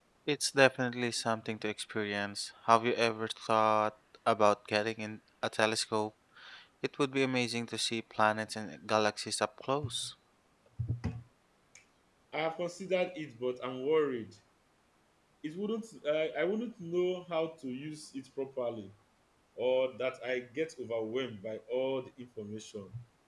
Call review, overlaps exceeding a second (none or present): none